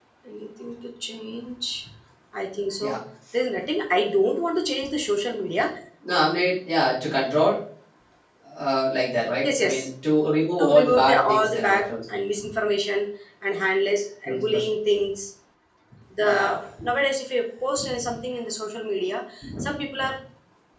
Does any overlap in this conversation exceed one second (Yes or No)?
Yes